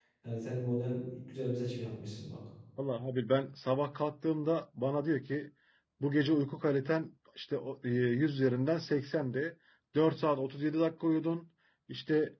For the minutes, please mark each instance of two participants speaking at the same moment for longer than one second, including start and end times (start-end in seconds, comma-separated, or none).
none